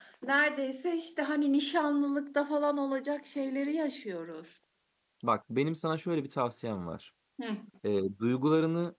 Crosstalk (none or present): none